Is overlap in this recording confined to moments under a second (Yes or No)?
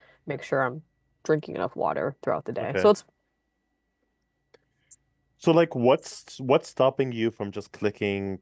Yes